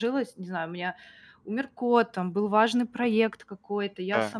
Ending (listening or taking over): listening